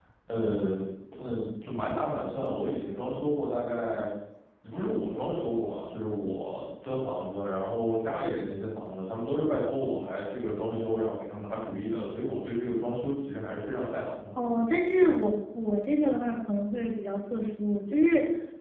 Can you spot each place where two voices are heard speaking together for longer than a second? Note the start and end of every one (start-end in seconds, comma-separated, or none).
none